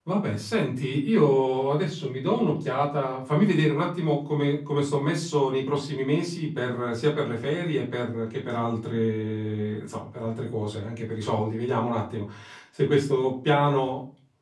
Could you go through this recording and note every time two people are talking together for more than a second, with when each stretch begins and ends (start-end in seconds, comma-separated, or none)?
none